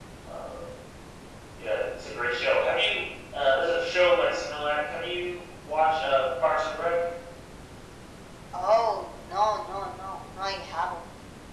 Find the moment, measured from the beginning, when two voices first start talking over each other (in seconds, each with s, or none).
none